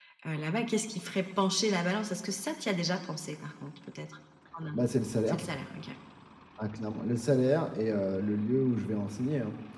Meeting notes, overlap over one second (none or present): none